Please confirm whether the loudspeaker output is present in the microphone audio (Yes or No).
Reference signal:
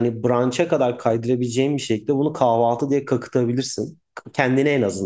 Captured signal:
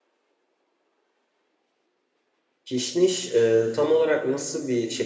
No